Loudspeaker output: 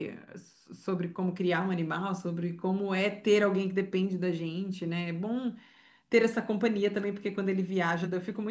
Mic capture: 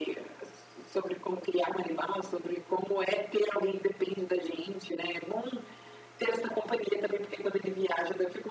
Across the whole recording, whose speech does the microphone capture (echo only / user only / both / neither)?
echo only